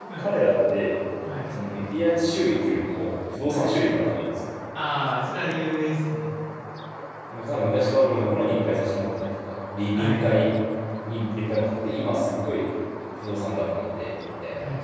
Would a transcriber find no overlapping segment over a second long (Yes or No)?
Yes